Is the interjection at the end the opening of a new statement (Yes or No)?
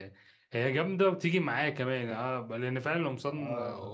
No